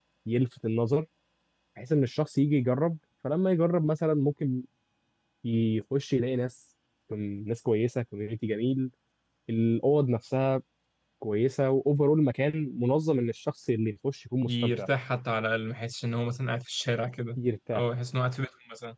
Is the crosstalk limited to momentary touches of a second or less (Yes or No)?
Yes